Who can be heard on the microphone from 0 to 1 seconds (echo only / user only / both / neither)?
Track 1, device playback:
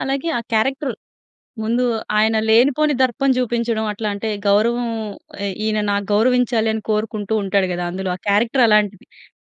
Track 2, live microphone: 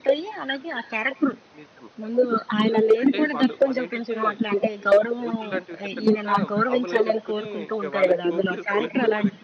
echo only